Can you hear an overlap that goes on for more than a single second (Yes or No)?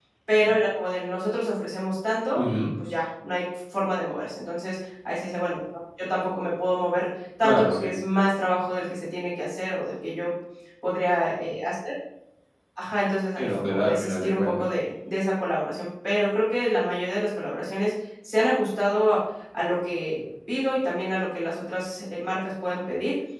Yes